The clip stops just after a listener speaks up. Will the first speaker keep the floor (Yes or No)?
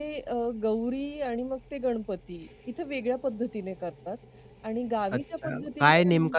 No